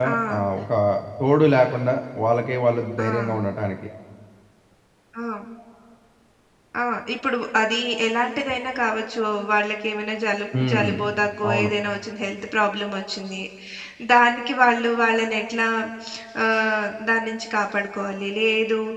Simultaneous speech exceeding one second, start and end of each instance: none

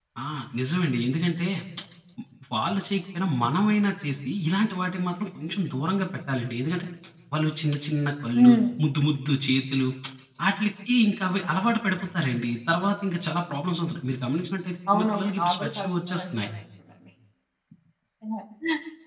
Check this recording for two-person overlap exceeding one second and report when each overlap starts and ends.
14.9-16.5

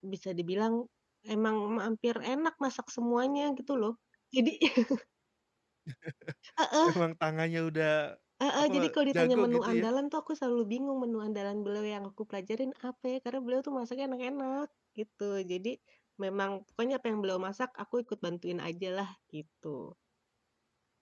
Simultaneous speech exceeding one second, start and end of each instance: 8.6-9.9

